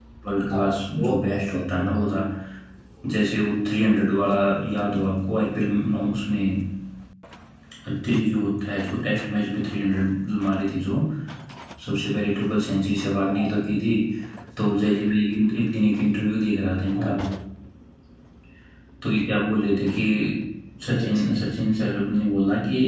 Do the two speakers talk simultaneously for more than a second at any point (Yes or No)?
Yes